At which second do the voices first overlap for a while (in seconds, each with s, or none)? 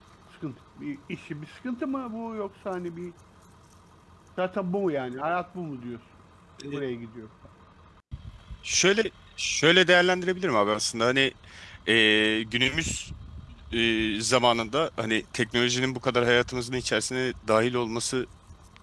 none